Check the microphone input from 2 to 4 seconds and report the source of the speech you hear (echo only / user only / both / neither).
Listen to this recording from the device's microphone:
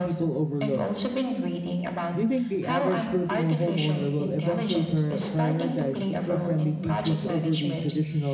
both